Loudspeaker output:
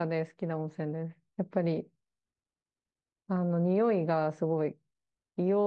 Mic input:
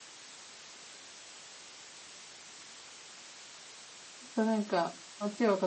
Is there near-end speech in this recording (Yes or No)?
Yes